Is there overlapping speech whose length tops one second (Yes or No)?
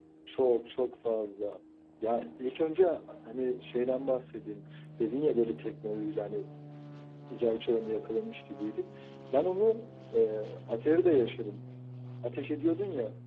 No